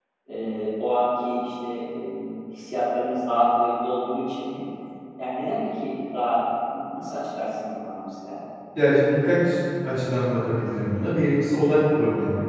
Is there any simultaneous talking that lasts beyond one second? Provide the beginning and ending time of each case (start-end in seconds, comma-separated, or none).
none